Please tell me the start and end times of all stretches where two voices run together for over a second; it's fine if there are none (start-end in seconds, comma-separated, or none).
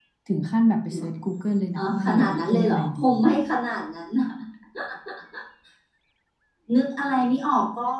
1.8-3.0